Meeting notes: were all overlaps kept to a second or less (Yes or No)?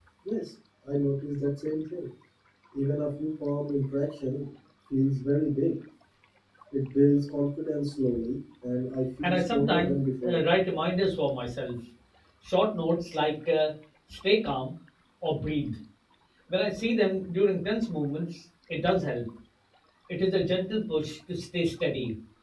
No